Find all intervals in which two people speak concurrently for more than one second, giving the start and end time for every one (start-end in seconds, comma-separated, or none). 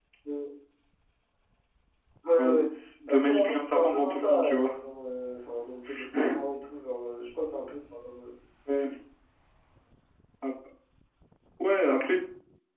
3.1-4.8